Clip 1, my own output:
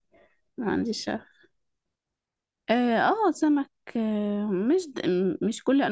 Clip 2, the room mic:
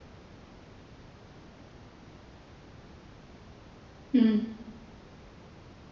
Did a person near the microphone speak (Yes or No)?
Yes